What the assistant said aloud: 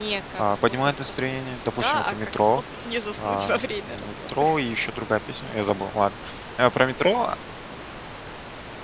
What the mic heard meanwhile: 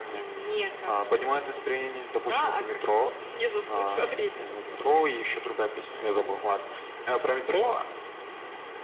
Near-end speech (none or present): none